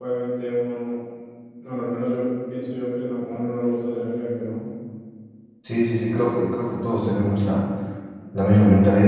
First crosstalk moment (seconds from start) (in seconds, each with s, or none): none